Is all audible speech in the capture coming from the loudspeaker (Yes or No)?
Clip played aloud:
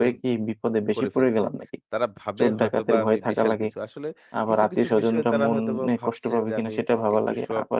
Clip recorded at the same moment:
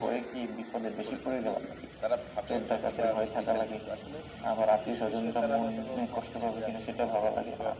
Yes